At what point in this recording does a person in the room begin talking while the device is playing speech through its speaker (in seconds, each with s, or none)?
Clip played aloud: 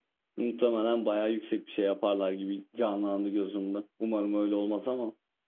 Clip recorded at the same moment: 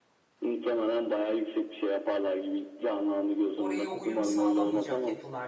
3.5 s